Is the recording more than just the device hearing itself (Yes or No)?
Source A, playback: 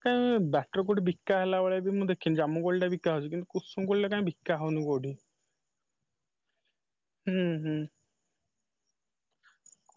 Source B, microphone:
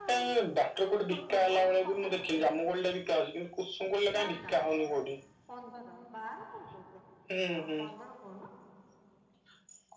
Yes